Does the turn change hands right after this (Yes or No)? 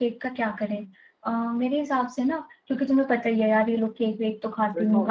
No